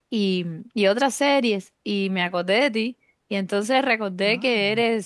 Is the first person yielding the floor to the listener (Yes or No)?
No